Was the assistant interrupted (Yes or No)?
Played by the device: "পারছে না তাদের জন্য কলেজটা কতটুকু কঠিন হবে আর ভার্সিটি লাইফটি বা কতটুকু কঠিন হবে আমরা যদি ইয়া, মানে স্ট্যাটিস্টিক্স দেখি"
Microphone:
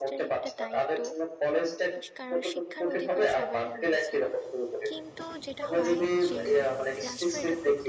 Yes